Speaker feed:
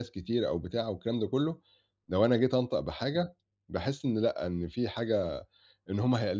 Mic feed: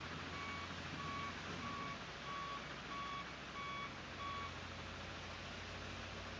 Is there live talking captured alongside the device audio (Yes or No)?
No